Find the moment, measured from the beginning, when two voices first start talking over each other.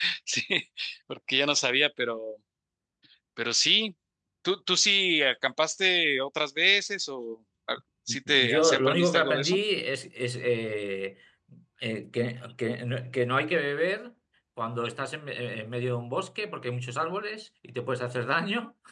8.1 s

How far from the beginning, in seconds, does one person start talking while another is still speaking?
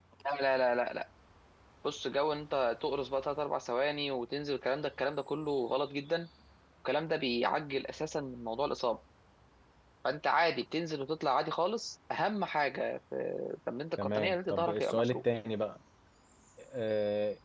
14.0 s

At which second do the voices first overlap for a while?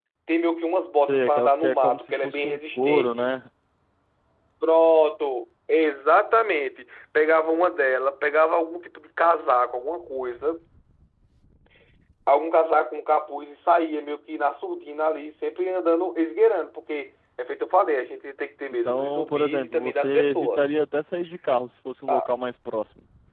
1.0 s

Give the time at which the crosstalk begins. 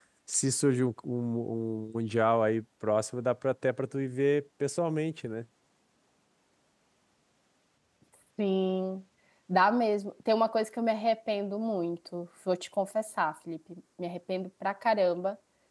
none

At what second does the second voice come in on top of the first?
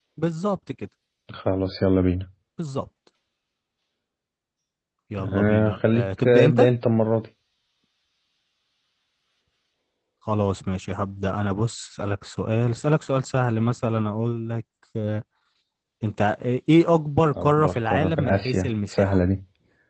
5.3 s

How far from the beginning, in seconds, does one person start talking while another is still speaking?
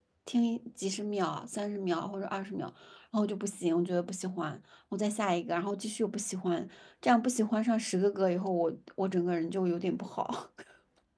none

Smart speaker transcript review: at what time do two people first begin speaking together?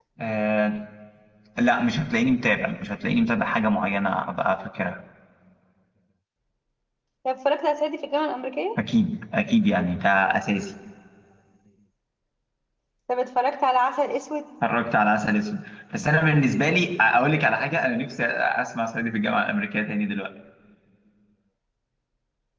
none

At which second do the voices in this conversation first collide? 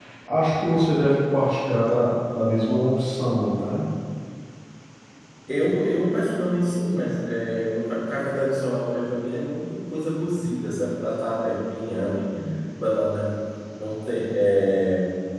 none

